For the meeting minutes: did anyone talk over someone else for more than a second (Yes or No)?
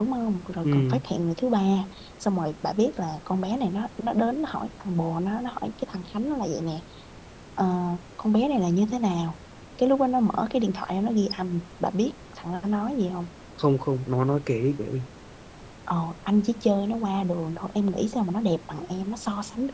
No